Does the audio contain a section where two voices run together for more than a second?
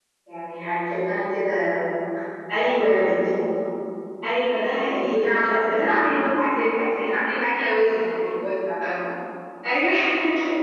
Yes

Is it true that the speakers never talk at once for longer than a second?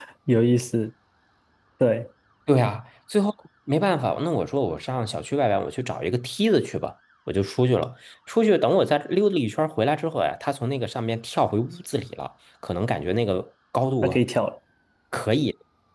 Yes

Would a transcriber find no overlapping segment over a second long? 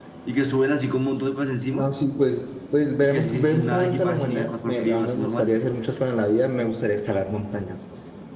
No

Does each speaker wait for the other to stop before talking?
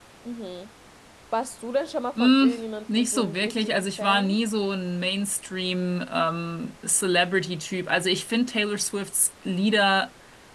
No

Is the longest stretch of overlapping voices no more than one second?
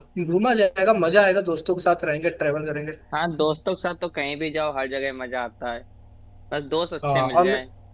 Yes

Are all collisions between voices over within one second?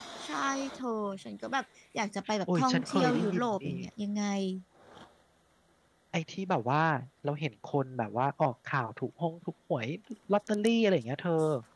No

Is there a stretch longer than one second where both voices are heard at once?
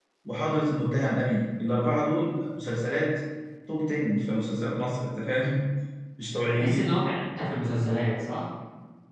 No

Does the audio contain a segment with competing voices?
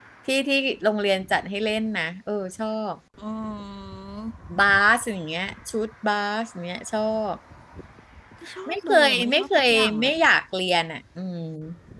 Yes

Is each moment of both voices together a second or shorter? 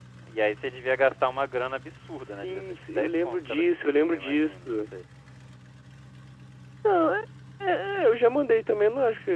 No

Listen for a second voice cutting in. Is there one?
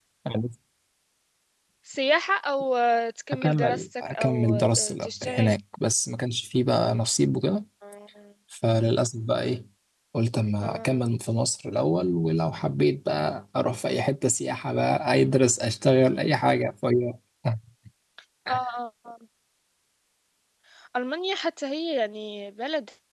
Yes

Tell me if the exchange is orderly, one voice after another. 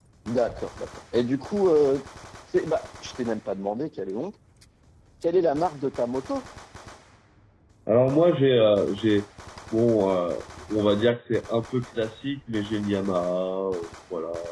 Yes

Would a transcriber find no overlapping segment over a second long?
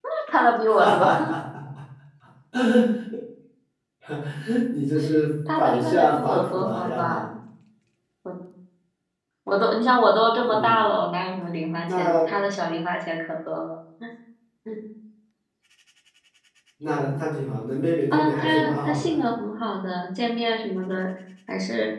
No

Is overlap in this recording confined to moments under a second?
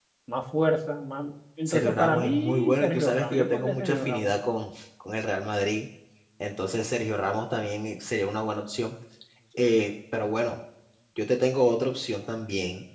No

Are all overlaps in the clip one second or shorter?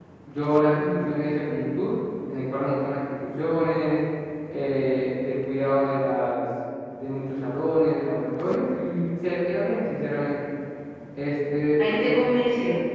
Yes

